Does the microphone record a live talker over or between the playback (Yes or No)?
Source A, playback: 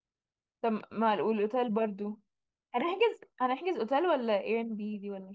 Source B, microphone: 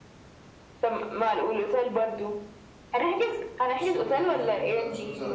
Yes